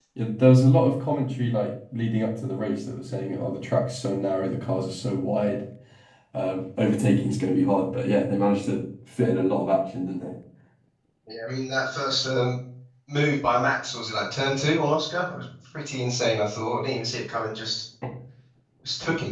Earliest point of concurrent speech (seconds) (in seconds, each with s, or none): none